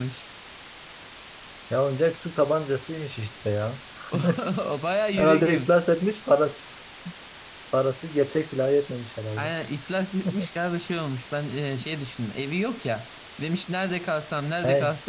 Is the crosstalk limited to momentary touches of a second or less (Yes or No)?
Yes